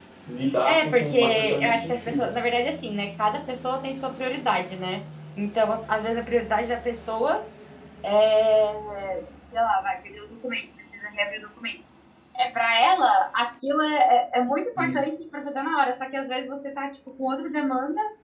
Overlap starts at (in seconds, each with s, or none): 0.6 s